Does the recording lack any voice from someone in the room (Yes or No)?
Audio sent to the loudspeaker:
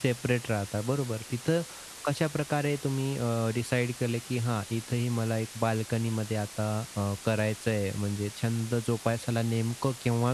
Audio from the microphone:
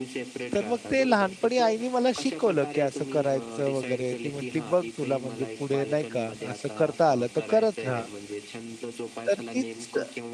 No